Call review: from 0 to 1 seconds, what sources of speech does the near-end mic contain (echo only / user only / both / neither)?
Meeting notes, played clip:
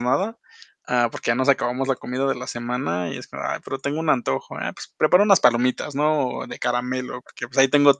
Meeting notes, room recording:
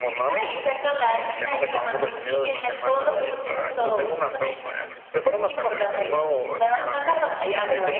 both